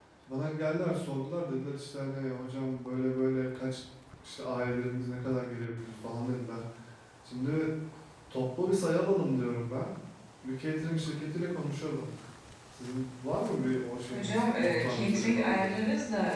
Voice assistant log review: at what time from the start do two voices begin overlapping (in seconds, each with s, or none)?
14.1 s